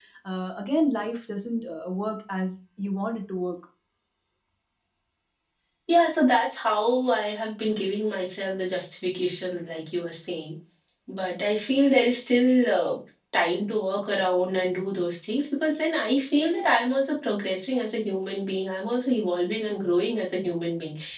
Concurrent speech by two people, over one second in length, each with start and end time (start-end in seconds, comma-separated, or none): none